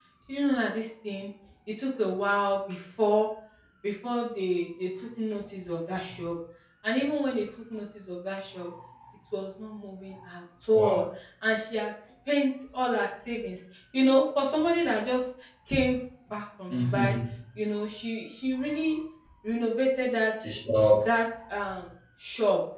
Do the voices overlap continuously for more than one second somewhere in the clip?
No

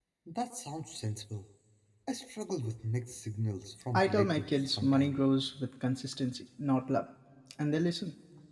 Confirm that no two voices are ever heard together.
No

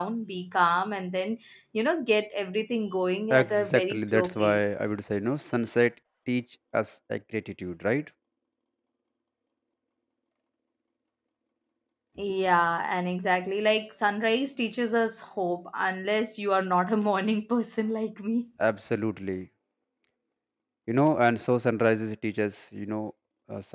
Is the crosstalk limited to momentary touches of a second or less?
No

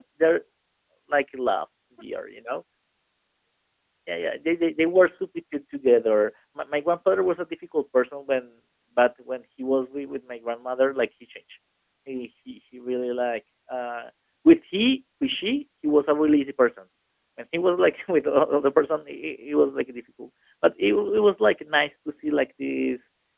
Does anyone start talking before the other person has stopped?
No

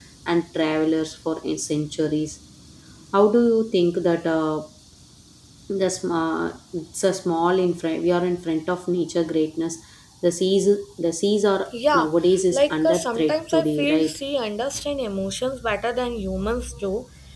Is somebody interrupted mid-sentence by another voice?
Yes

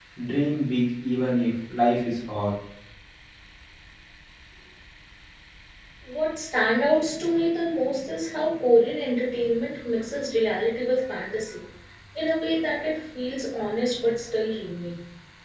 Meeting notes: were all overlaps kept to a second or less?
Yes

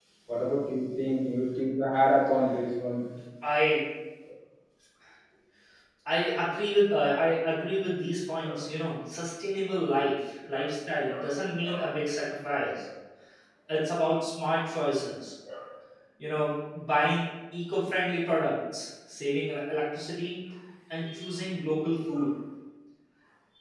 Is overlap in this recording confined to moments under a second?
Yes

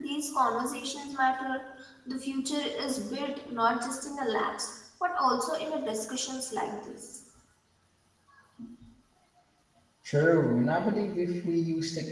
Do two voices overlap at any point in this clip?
No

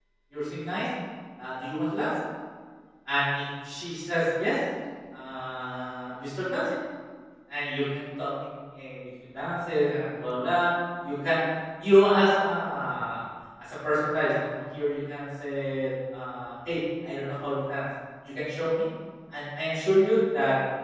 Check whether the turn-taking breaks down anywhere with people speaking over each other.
No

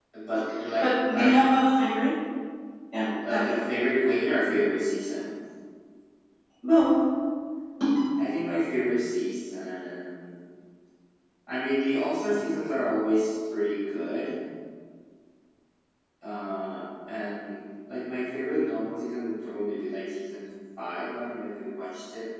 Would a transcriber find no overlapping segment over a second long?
Yes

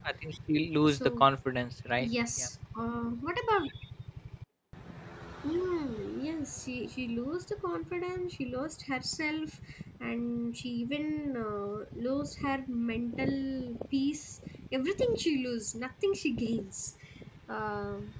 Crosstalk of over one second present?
No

